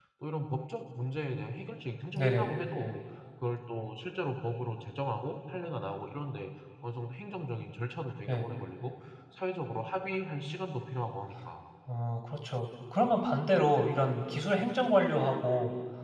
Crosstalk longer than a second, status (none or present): none